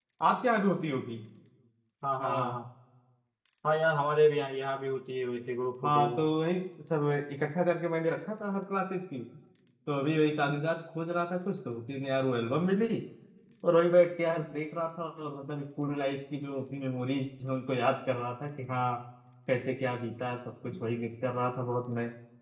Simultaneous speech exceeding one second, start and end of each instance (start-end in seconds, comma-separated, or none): none